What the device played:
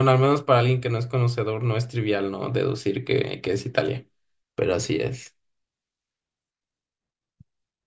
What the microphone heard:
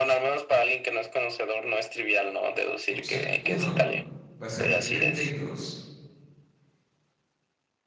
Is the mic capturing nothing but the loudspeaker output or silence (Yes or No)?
No